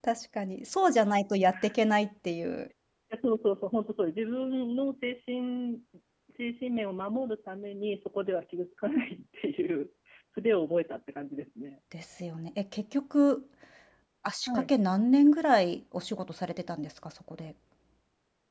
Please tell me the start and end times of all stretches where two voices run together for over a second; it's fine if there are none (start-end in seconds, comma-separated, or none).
none